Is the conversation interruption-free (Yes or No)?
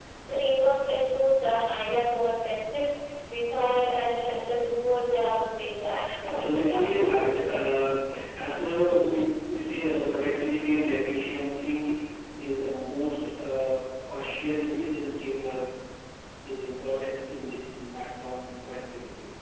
No